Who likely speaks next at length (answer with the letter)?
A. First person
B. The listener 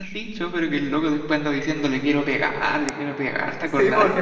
B